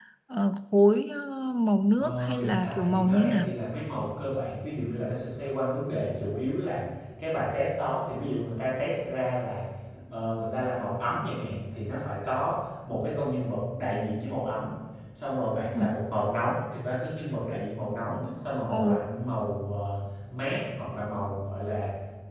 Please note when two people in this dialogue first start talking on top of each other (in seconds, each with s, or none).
2.0 s